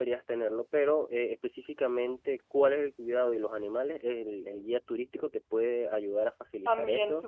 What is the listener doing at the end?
taking over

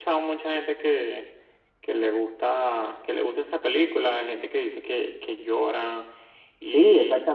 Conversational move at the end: taking over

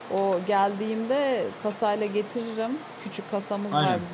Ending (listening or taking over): listening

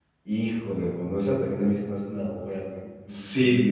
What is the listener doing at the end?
taking over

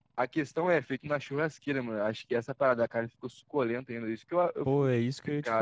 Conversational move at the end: taking over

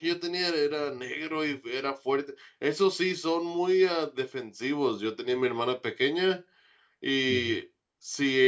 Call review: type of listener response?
listening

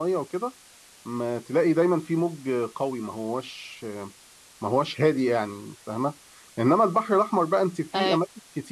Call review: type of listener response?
listening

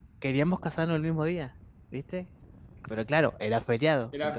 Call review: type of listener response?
listening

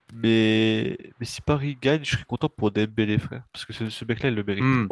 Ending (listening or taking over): listening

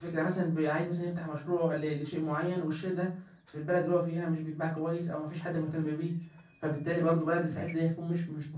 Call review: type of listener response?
listening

